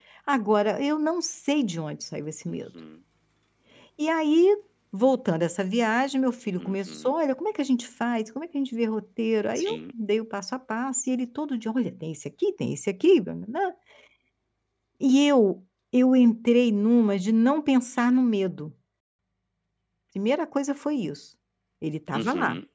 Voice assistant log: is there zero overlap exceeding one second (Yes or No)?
Yes